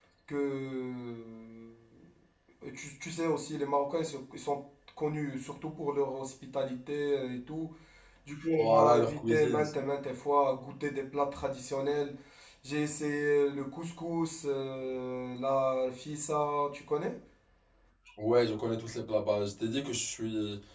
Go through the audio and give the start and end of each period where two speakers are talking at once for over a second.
8.6-9.8

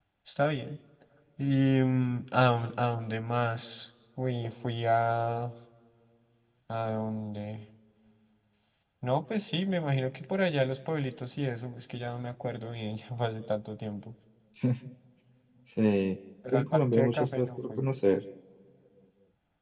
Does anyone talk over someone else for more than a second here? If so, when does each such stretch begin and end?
16.5-17.8

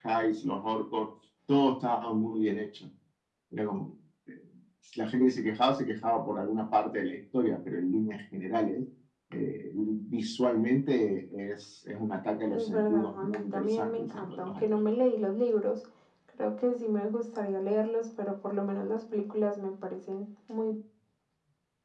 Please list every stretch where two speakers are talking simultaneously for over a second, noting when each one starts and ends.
12.4-14.7

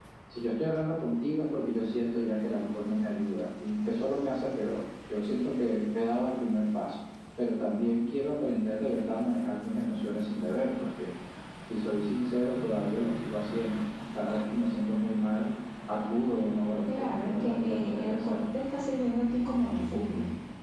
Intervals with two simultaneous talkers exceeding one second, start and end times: 16.9-18.4

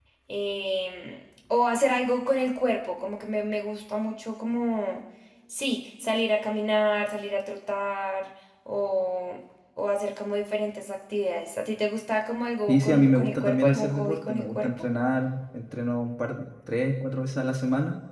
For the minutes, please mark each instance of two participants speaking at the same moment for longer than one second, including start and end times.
12.7-14.9

